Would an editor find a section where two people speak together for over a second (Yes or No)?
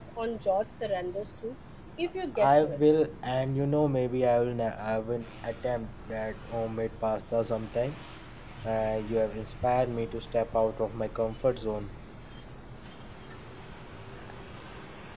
No